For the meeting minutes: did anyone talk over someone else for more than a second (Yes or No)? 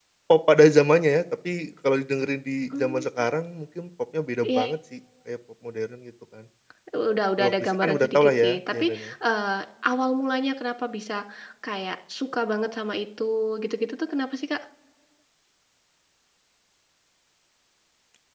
Yes